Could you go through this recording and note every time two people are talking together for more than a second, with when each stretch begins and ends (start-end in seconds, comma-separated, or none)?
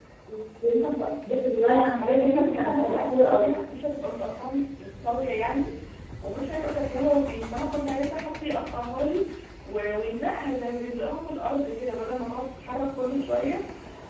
1.6-3.5